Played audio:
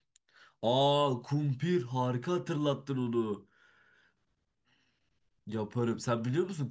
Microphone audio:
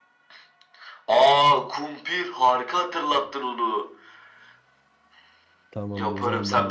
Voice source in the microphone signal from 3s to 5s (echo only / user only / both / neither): echo only